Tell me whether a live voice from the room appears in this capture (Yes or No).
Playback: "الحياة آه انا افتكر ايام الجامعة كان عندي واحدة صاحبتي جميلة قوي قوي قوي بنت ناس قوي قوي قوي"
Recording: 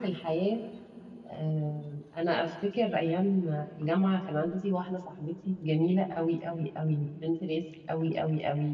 No